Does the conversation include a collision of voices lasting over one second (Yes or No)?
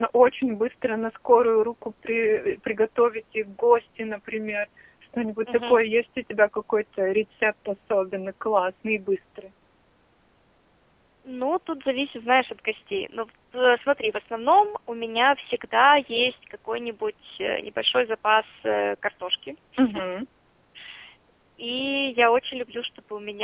No